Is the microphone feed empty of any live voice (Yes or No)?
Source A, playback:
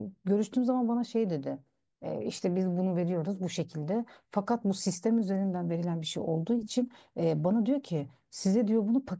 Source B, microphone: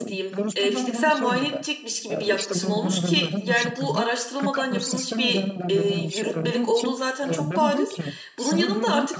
No